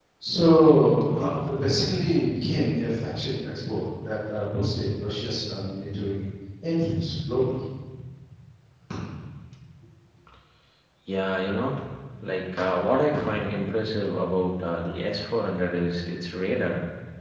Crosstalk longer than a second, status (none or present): none